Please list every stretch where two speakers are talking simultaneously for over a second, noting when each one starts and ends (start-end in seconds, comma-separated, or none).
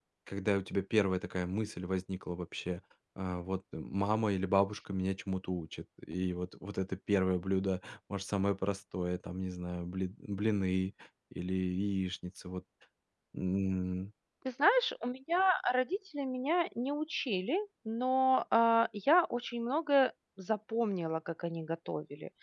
none